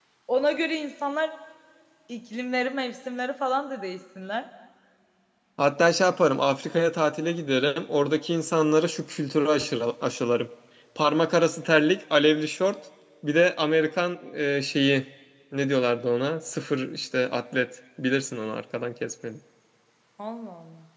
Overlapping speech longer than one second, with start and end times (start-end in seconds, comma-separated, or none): none